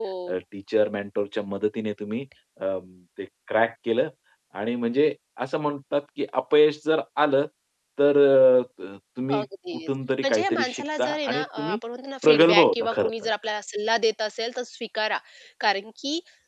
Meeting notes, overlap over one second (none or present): present